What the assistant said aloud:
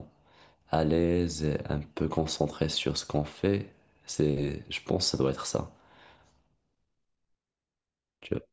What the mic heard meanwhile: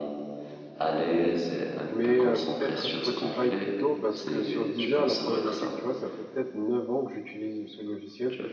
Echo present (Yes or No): Yes